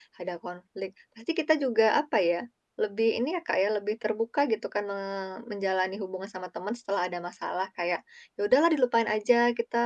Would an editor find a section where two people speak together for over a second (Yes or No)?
No